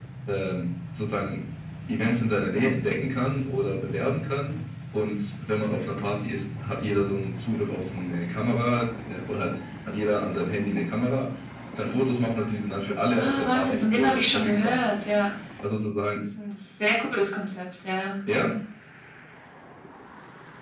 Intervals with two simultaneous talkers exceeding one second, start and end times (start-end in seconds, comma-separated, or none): 13.2-14.8